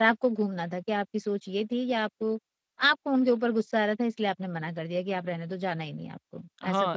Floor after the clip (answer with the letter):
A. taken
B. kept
A